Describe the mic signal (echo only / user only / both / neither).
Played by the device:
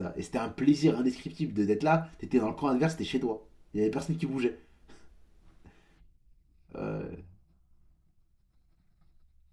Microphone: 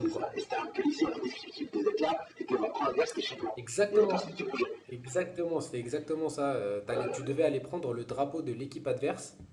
both